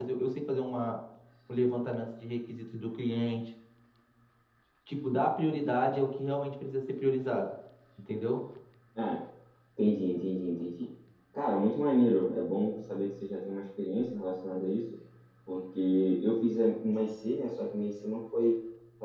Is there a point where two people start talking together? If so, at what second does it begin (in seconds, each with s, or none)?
none